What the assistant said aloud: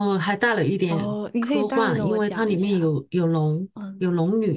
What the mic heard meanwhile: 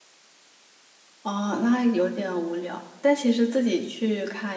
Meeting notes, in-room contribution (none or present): present